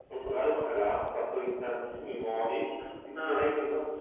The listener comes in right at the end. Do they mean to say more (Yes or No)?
No